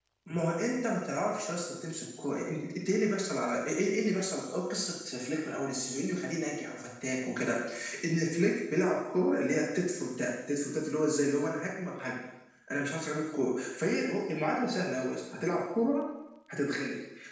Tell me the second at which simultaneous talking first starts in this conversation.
none

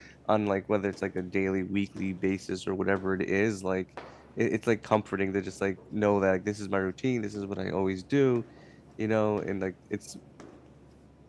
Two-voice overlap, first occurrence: none

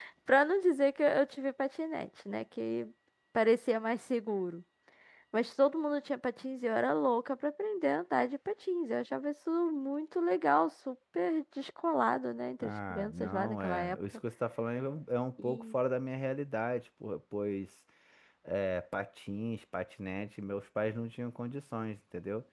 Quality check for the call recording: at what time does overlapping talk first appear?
12.6 s

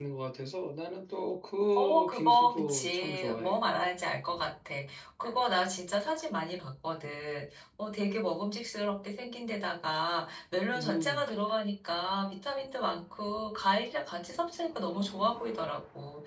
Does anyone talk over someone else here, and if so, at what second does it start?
1.8 s

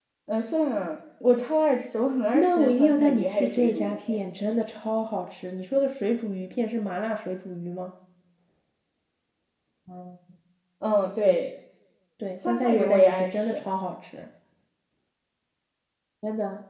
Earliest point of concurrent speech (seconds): 2.3 s

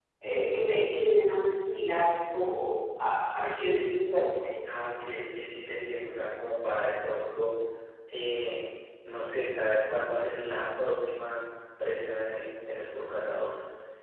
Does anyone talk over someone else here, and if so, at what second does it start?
none

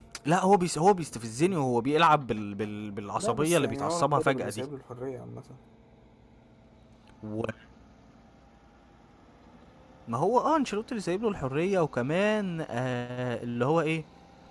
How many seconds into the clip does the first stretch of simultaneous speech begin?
3.2 s

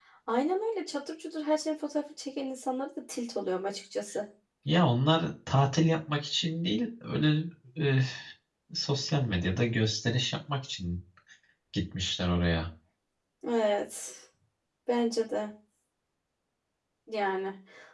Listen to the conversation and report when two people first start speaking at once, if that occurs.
none

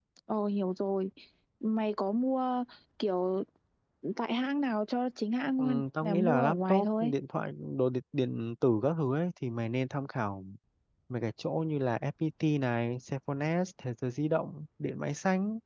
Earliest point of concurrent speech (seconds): 5.6 s

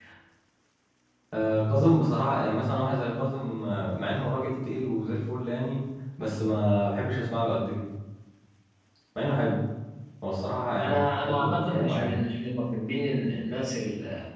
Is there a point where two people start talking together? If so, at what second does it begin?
10.8 s

